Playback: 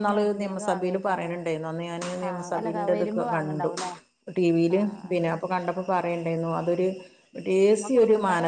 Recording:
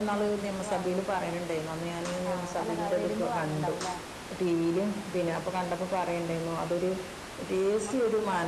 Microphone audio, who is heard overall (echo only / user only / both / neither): echo only